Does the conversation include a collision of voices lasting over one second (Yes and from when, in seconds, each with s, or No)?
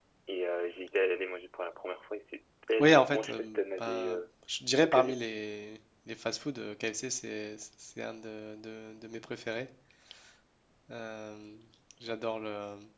Yes, from 2.8 s